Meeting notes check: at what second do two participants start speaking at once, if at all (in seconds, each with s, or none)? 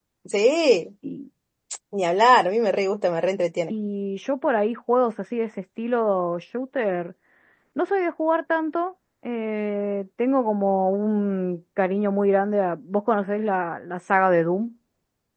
none